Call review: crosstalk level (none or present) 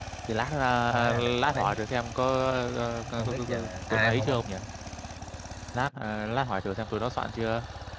present